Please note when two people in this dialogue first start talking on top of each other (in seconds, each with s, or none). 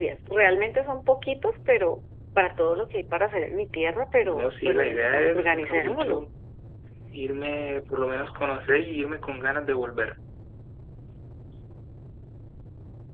4.2 s